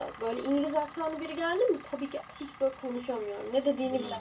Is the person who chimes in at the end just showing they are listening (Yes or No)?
No